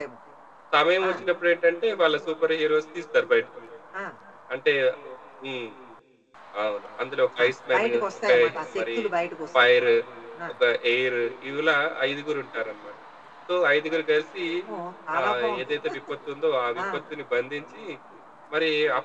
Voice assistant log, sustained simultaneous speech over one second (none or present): present